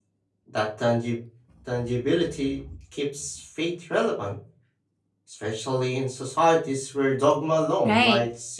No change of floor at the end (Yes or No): No